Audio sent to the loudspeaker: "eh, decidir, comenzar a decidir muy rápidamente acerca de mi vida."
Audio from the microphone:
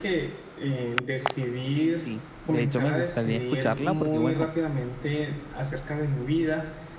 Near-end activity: present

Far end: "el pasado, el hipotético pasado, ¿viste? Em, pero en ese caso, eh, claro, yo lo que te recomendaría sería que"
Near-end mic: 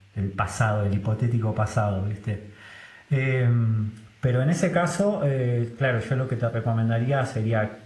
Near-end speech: none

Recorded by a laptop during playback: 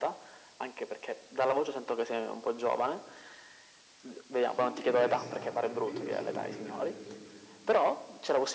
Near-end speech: present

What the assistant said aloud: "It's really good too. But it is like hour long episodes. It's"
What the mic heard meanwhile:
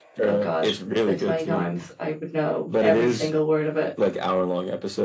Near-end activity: present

